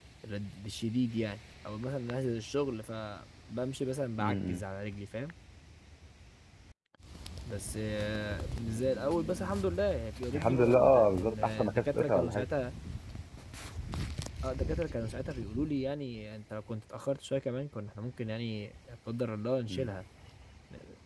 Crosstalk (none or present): present